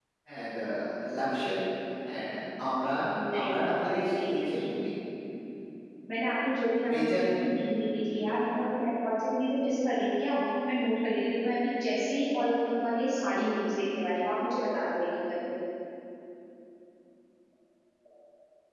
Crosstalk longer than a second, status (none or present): present